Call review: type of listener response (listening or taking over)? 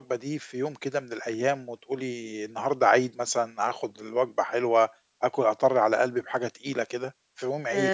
taking over